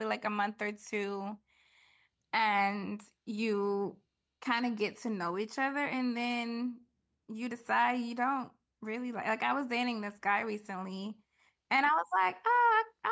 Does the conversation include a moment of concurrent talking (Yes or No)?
No